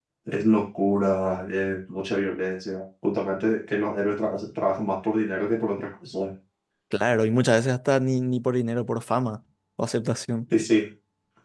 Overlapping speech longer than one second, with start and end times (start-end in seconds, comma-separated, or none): none